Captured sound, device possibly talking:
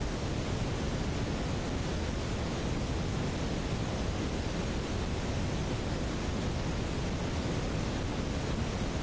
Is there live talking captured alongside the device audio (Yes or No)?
No